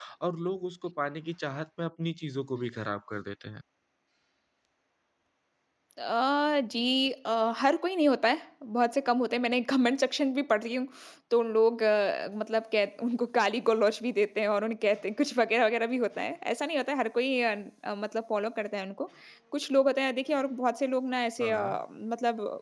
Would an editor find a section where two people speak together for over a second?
No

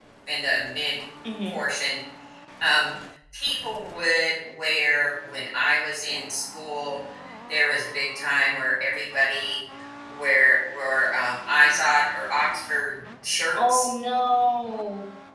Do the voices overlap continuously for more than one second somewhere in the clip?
No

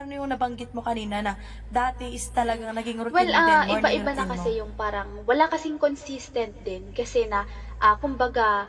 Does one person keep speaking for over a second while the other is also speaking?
Yes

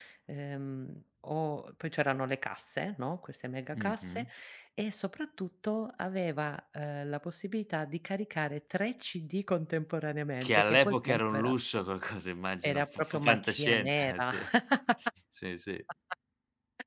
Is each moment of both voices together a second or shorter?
No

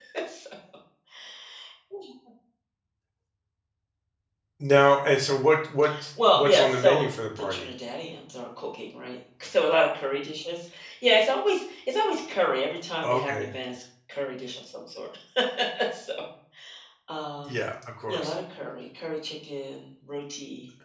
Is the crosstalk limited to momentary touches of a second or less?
No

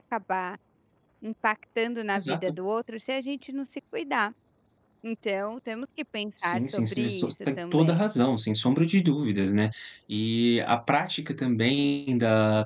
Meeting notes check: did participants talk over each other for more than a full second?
Yes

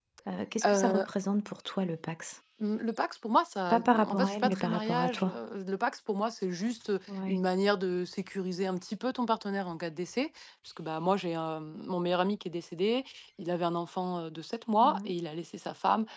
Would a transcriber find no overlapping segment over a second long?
No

